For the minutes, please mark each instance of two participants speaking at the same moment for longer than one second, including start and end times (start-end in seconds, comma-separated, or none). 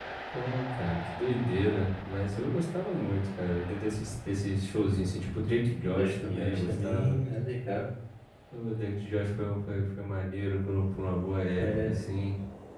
6.0-7.2